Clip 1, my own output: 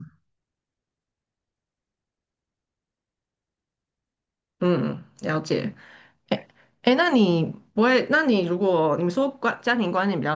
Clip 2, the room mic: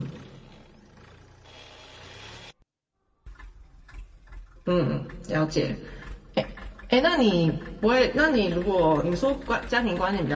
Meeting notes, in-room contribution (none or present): none